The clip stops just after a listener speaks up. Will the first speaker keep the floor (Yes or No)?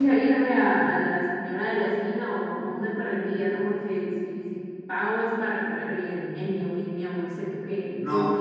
No